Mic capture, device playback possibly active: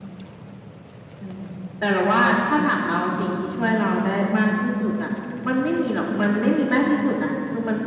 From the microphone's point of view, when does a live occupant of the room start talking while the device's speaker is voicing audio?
none

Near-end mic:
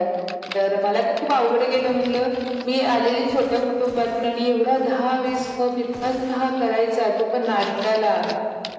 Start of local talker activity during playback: none

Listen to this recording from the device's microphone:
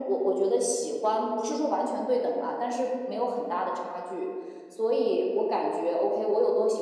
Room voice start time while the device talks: none

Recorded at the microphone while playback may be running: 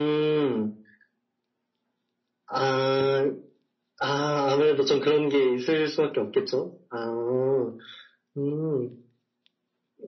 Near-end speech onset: none

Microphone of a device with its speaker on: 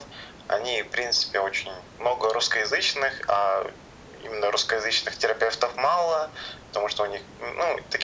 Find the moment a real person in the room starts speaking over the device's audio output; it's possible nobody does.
none

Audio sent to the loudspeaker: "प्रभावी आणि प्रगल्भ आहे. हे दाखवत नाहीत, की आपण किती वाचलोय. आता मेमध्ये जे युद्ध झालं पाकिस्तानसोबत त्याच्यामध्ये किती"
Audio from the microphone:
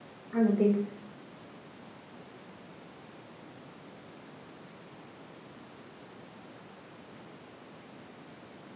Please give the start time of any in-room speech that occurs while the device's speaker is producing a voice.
0.3 s

